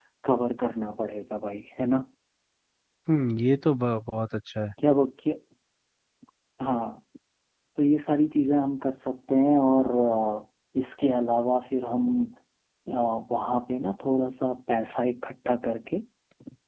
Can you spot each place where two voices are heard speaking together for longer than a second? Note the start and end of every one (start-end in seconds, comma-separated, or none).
none